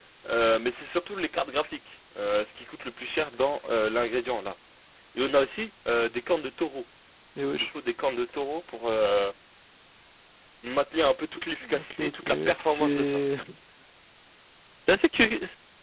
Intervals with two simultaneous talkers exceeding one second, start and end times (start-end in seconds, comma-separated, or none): 11.6-13.2